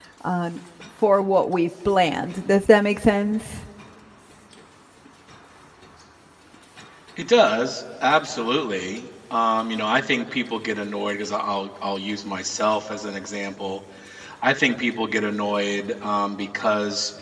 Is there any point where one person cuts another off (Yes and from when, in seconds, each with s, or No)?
No